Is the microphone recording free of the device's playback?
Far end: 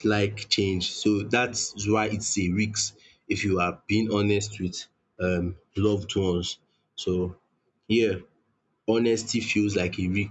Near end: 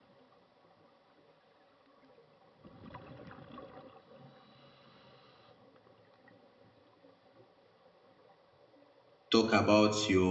Yes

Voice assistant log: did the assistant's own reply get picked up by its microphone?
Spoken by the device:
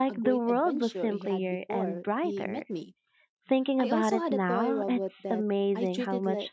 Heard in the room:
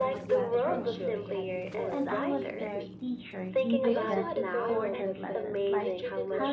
Yes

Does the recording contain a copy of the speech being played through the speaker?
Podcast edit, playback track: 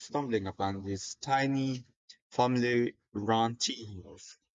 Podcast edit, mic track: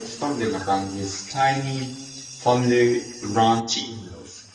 Yes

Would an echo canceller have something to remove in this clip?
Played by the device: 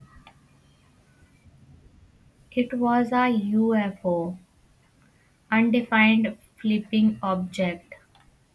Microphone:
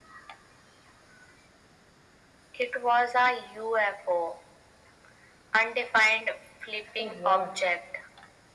Yes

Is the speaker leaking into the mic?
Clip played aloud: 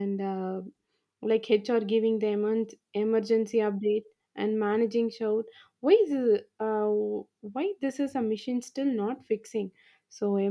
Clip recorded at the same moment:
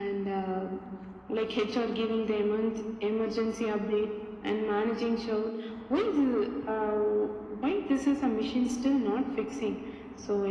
Yes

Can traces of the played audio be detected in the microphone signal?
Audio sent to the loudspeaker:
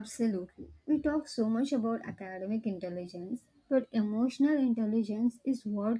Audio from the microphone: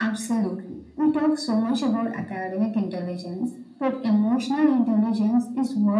Yes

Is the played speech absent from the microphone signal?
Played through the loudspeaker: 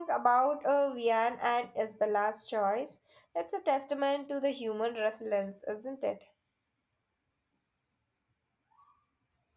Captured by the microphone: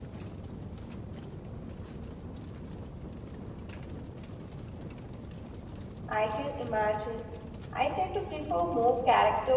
Yes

